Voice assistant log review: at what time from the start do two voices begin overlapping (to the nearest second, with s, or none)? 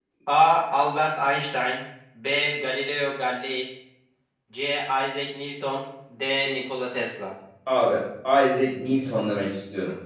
none